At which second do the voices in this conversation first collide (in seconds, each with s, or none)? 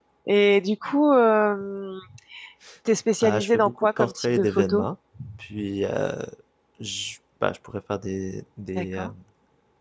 3.2 s